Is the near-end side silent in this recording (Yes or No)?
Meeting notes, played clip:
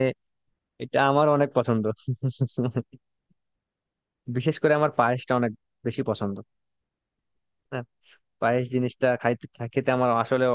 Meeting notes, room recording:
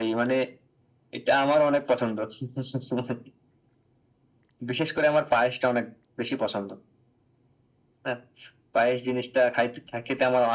Yes